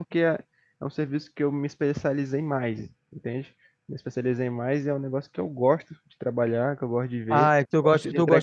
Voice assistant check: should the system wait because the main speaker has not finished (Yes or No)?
No